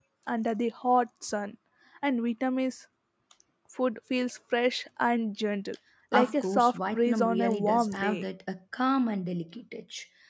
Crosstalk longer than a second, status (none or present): present